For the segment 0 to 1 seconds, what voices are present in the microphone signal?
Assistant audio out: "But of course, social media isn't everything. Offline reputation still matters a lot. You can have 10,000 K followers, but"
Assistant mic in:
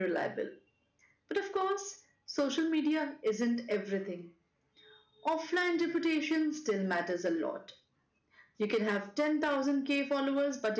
echo only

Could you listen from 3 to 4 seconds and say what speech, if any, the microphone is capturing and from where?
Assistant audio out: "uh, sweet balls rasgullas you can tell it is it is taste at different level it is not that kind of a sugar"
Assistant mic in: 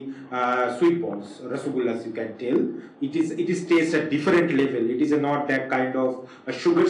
echo only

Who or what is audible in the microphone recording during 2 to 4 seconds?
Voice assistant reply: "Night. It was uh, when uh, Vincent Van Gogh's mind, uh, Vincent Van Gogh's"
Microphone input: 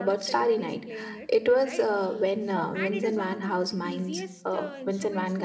both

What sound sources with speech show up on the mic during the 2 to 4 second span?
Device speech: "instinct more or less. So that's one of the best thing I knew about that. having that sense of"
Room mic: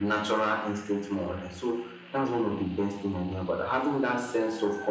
echo only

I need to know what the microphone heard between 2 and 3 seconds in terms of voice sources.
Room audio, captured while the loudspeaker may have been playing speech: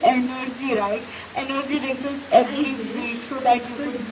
both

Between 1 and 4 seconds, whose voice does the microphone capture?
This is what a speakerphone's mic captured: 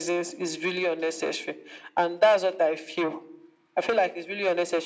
echo only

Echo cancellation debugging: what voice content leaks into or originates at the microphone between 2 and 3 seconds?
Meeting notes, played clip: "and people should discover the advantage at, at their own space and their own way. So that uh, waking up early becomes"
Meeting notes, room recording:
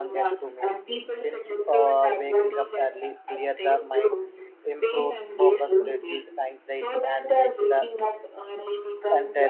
both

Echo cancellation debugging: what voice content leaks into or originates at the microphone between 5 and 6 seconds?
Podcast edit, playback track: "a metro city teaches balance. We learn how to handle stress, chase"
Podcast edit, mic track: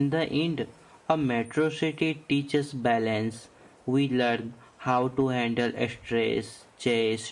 echo only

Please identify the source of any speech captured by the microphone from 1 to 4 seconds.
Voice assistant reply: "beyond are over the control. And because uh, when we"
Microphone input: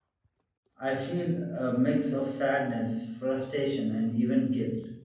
user only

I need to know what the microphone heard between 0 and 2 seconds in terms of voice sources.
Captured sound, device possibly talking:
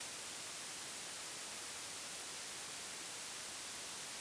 neither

